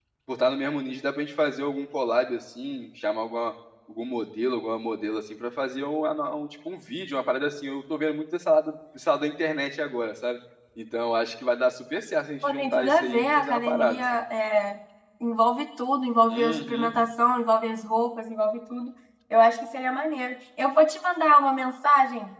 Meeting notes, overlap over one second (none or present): present